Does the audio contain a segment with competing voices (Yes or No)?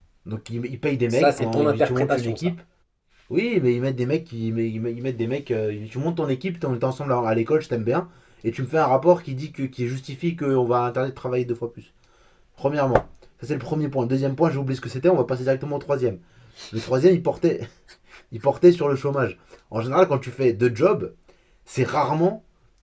Yes